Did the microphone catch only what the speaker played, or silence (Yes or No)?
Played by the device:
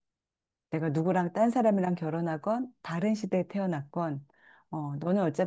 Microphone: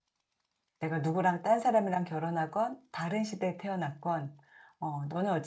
Yes